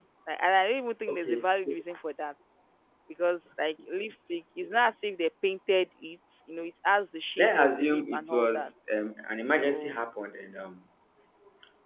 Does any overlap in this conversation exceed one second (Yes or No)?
Yes